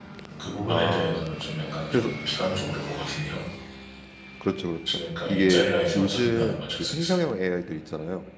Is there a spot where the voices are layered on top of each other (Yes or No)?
Yes